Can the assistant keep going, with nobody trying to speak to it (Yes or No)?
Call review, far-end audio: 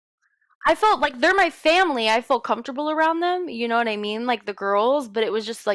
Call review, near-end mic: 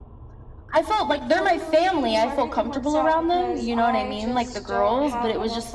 No